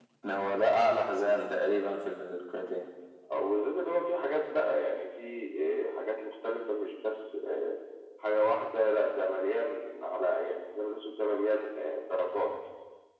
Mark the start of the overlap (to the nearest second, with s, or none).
none